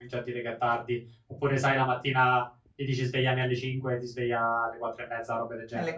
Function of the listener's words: taking over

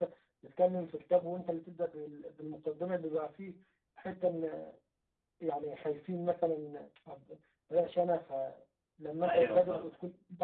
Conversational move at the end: listening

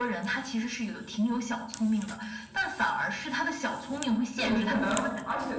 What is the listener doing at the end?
taking over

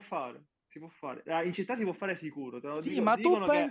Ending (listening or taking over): taking over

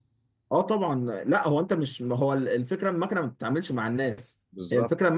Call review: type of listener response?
listening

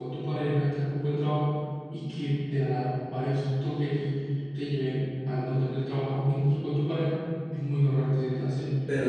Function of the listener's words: taking over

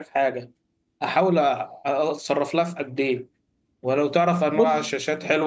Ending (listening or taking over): listening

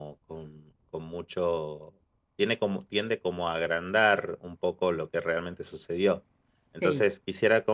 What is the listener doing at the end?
listening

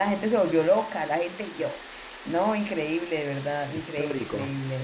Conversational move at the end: listening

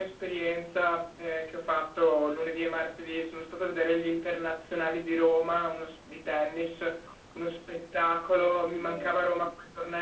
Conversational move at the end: listening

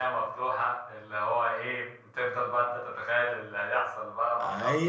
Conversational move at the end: taking over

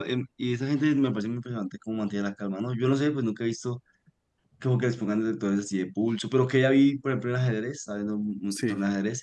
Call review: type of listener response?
listening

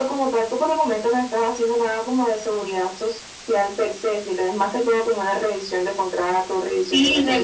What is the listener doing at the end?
taking over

